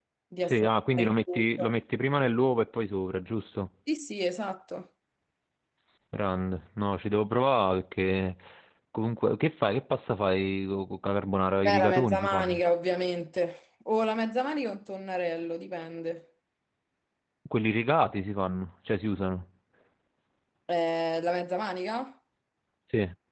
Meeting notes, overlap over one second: present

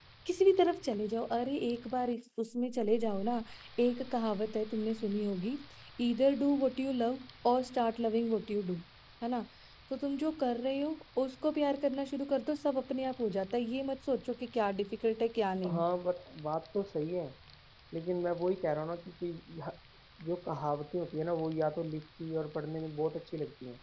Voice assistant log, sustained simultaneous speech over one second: none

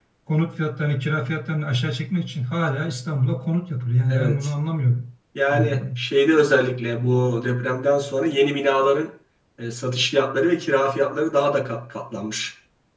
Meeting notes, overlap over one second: none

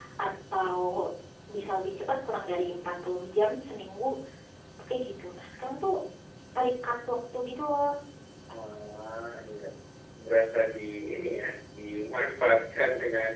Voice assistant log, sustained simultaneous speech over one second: none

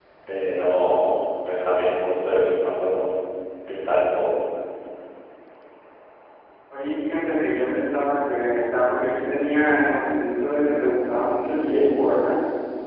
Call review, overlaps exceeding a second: none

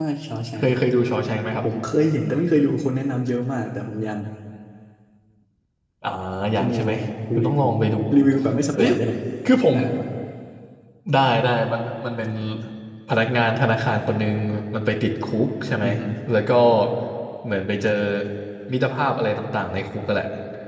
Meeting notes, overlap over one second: none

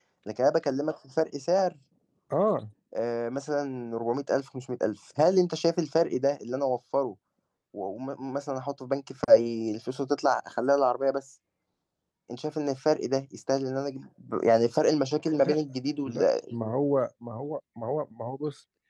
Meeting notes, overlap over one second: none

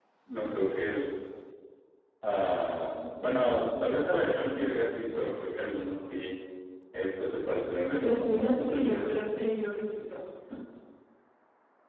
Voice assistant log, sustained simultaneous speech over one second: present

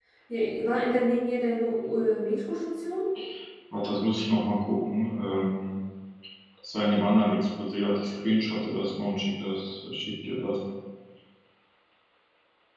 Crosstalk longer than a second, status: none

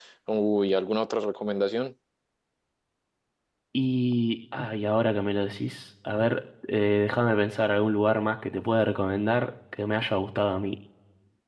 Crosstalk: none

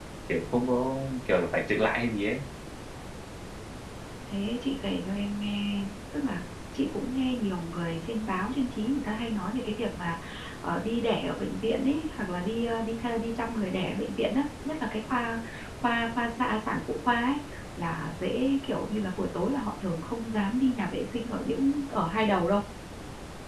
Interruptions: none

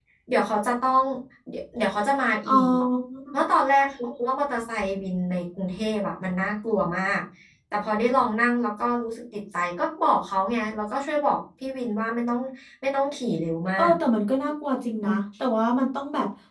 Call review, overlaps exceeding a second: none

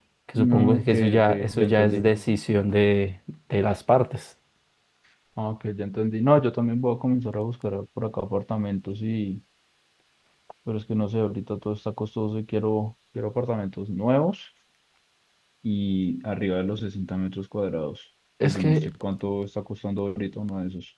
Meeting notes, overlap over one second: present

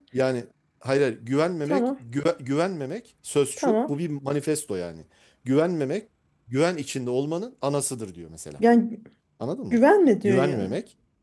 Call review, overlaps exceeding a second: none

